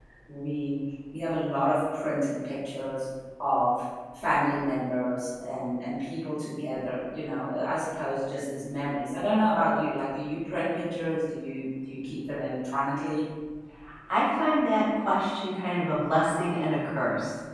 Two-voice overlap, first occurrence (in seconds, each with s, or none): none